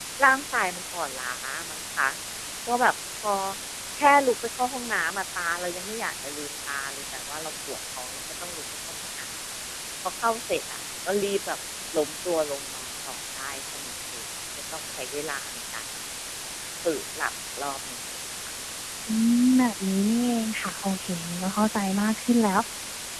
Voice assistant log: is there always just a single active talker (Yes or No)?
Yes